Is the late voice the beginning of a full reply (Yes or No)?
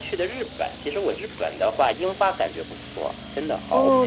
Yes